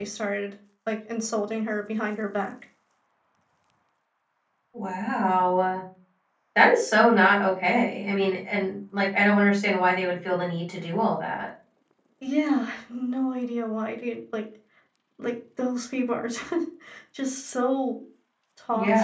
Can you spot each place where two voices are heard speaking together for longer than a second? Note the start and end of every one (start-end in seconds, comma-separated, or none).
none